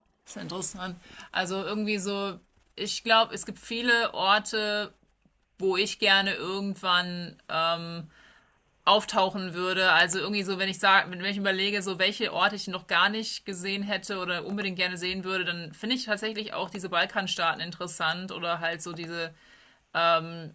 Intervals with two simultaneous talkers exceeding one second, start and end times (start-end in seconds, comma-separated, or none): none